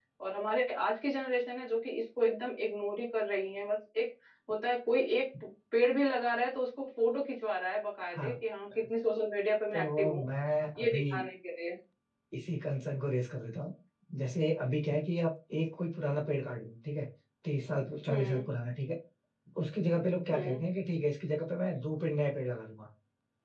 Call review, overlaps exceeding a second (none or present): none